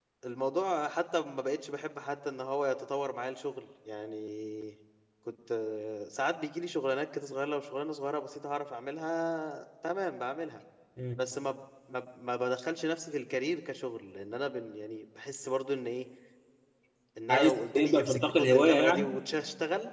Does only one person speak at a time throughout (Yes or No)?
No